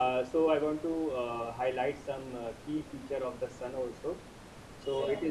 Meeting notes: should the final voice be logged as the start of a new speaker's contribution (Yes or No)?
No